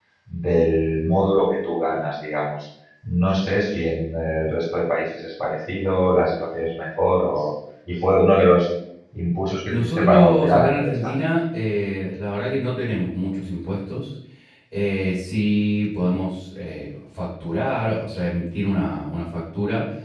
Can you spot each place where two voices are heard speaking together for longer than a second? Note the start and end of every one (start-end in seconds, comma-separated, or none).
9.7-11.1